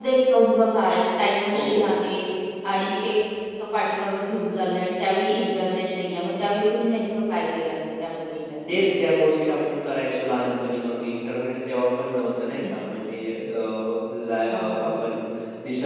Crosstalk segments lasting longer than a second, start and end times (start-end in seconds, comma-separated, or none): none